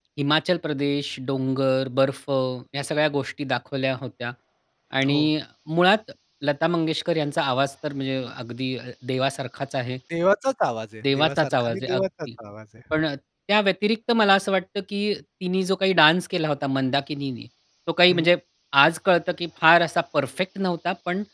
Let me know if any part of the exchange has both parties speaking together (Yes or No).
Yes